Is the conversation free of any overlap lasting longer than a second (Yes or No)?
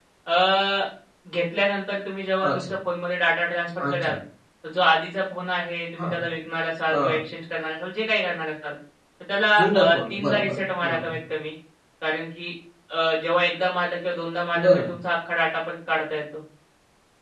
No